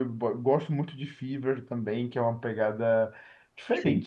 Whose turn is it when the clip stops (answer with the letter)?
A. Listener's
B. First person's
B